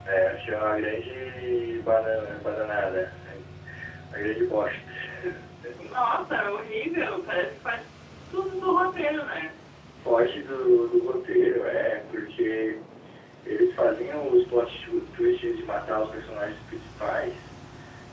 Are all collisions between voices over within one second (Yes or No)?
Yes